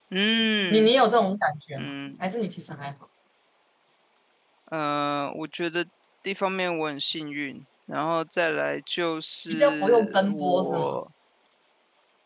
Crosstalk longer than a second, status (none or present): present